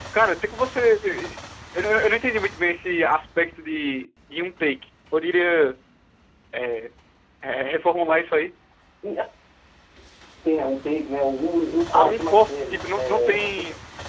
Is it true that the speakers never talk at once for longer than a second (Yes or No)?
No